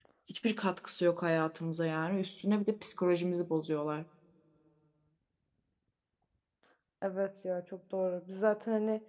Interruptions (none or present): none